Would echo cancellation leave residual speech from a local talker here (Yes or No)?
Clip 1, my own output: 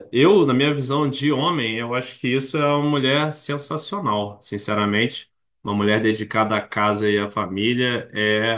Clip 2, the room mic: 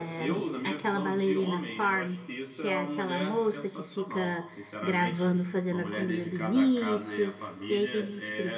Yes